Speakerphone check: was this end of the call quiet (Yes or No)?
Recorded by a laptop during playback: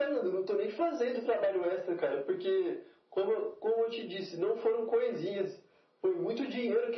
Yes